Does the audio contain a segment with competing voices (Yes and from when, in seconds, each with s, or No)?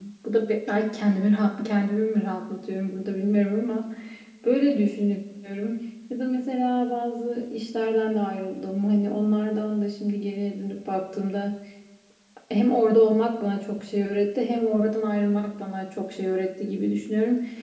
No